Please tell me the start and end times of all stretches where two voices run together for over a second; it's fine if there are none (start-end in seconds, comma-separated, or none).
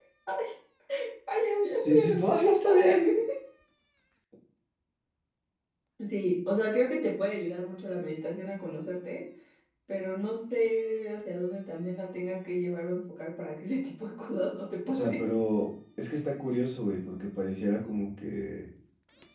1.8-3.0